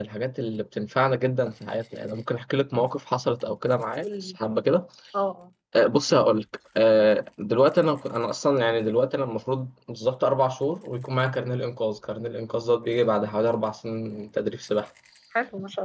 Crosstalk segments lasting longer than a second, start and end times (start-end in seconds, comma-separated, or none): none